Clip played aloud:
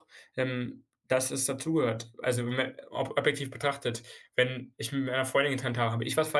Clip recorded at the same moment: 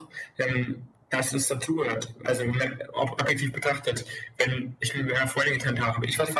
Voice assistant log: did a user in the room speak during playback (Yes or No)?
No